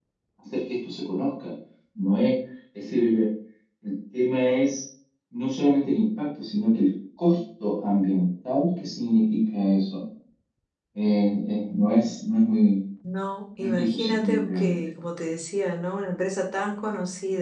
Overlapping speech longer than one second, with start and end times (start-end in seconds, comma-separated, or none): 13.6-14.8